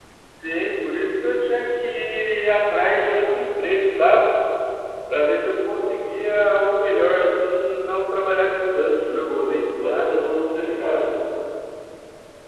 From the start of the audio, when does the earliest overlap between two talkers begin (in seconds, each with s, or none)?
8.8 s